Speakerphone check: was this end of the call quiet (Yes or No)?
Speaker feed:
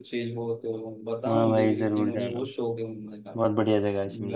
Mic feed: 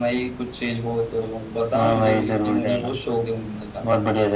Yes